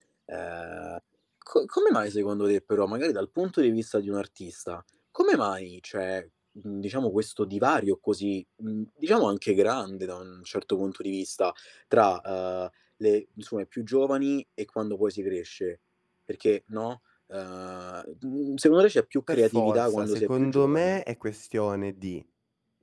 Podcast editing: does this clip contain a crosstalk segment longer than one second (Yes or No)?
Yes